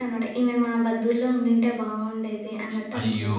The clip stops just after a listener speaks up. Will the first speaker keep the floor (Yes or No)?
No